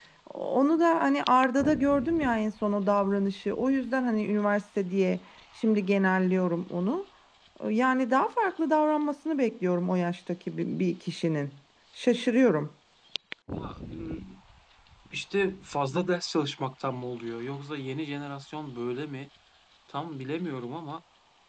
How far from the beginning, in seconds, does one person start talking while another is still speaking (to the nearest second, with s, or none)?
none